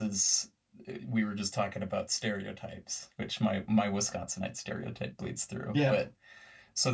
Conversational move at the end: listening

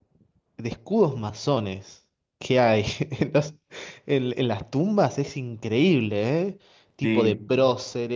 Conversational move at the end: listening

